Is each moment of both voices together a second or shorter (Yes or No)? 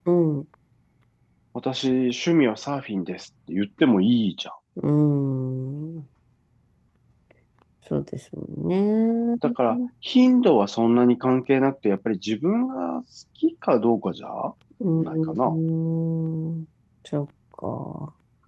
Yes